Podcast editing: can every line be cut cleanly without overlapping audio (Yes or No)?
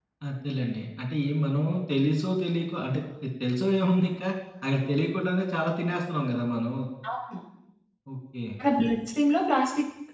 Yes